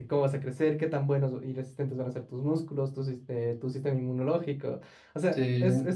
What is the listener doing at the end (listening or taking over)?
listening